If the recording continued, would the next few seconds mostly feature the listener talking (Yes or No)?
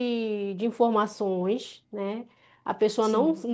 No